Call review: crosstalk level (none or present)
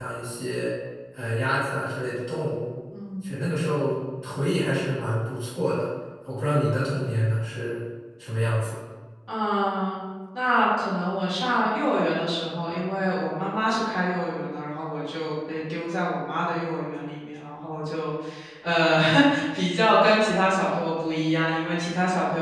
none